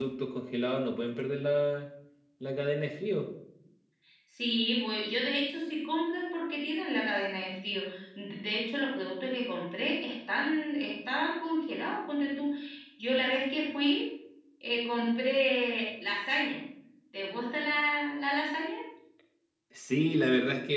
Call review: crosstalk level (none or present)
none